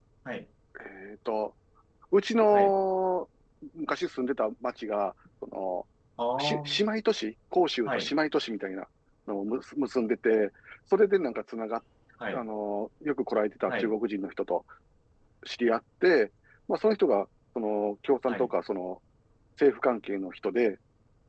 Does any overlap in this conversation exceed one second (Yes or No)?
No